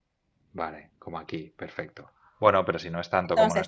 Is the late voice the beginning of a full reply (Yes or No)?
Yes